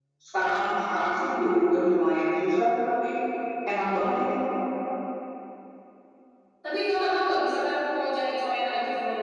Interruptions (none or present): none